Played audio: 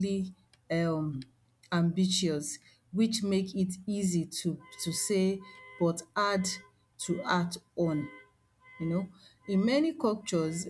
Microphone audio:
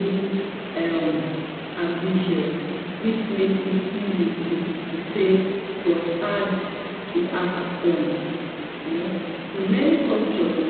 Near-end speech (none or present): none